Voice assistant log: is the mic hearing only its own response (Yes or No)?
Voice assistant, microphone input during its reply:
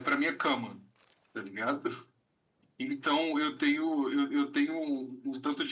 Yes